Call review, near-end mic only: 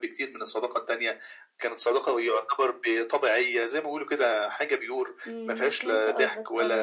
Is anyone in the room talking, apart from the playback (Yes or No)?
Yes